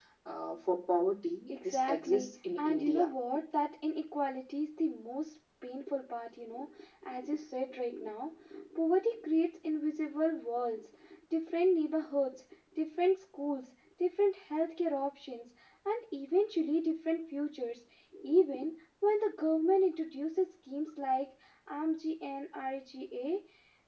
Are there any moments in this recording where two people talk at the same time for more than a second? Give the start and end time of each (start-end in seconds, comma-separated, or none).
1.5-3.1